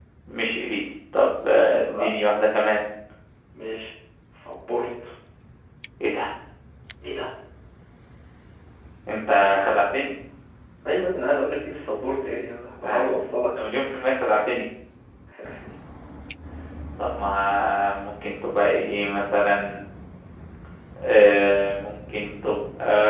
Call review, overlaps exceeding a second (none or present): none